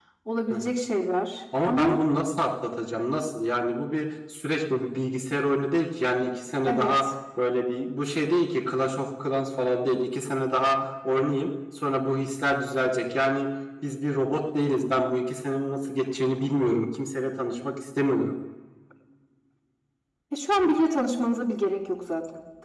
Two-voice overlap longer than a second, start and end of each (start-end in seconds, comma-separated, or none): none